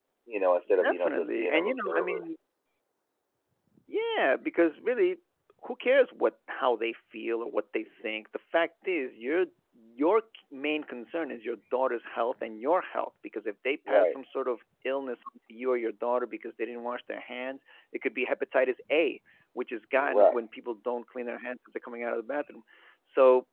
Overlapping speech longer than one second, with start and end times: 0.8-2.2

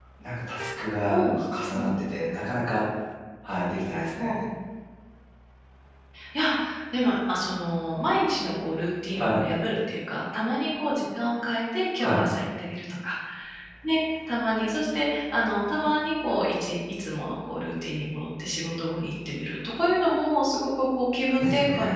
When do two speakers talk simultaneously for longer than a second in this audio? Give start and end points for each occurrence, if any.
none

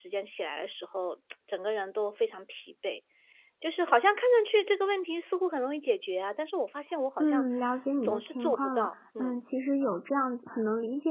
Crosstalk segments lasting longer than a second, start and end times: 8.0-9.4

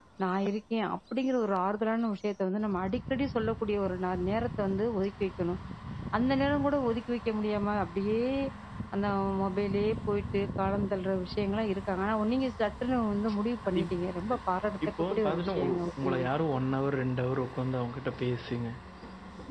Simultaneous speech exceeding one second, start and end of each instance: 15.0-16.3

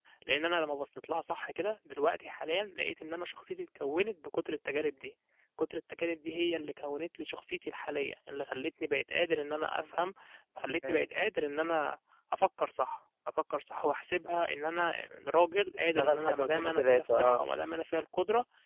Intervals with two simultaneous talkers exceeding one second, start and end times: 15.8-17.4

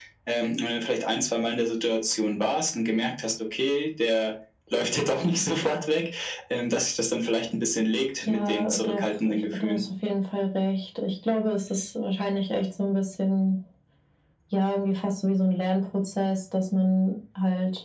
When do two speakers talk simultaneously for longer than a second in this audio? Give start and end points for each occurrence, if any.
8.3-9.8

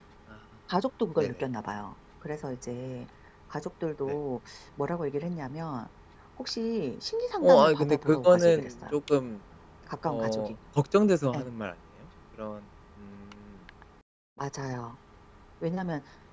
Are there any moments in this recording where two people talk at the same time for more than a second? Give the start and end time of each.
7.4-9.0

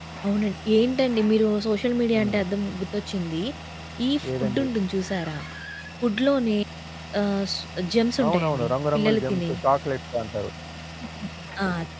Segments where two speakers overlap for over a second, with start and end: 8.2-9.5

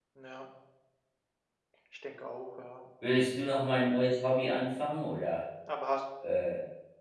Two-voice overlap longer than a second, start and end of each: none

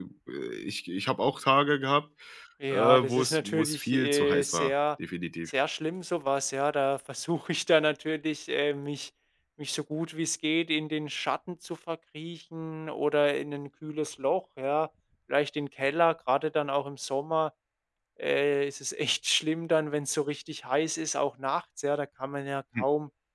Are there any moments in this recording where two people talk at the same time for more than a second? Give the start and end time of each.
2.7-4.7

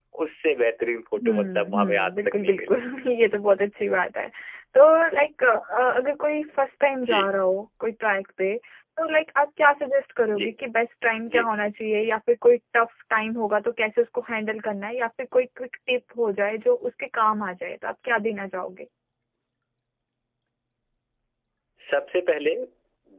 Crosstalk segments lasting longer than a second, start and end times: 1.2-2.8

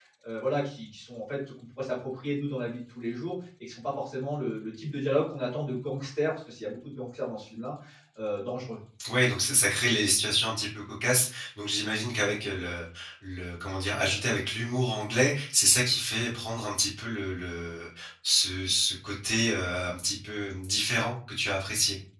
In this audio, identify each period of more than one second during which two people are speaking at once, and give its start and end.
none

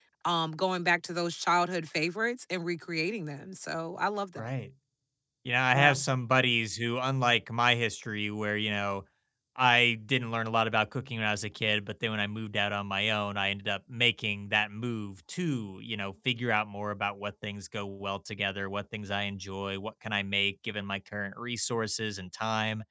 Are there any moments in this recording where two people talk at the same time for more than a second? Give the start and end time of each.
none

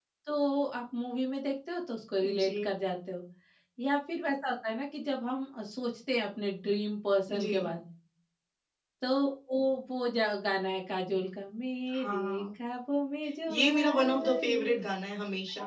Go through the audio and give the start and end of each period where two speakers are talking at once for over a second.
13.5-14.8

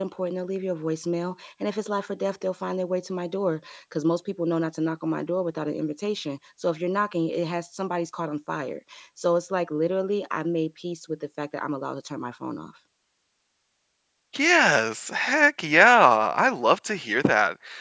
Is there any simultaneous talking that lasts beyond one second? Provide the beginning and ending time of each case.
none

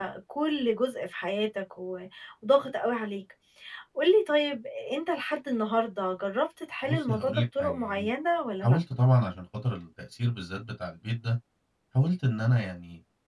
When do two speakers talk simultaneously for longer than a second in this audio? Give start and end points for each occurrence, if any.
6.9-8.1

